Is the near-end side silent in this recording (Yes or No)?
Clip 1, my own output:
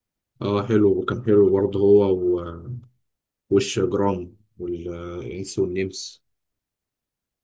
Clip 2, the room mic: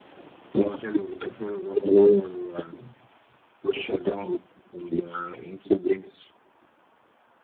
Yes